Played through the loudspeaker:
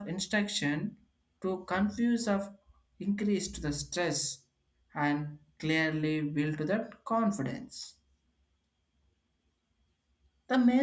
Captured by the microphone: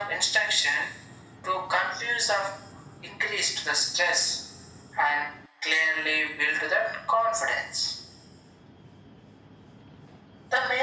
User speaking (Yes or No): No